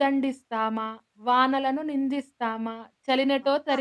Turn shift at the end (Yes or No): No